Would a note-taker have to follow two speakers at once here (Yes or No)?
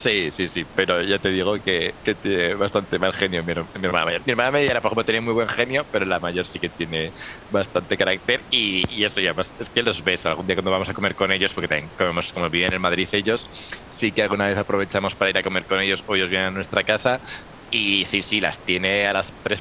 No